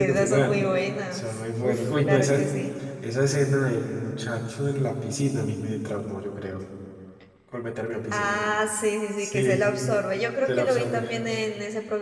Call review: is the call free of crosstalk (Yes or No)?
No